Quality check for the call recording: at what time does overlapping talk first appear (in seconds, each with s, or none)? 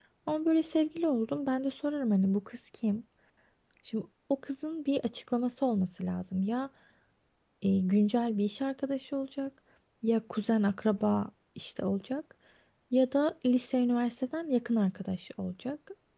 none